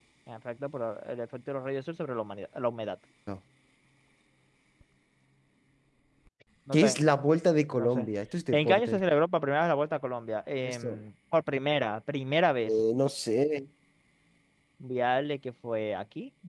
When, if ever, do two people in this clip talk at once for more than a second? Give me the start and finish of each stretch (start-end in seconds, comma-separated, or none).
none